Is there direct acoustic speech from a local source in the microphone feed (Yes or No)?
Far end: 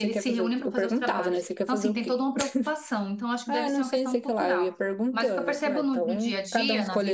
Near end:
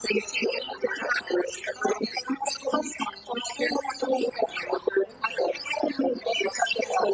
No